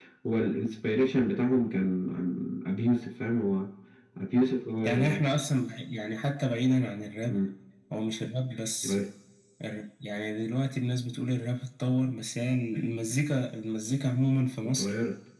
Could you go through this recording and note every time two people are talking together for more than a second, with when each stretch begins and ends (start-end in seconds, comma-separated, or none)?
none